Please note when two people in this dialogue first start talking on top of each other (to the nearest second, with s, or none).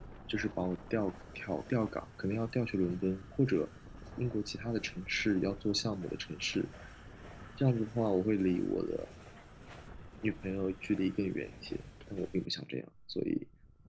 none